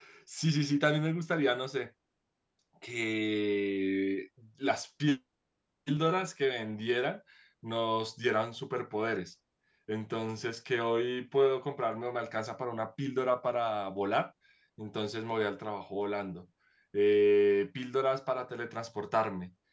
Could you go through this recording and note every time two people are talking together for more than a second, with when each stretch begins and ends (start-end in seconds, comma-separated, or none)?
none